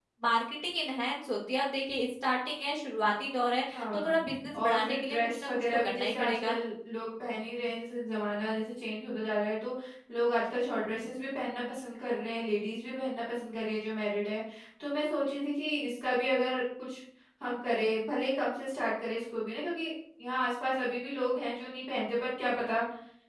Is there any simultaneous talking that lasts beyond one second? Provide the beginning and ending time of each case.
4.6-6.5

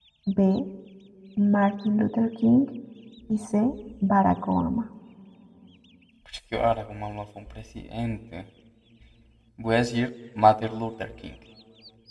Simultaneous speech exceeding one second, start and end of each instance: none

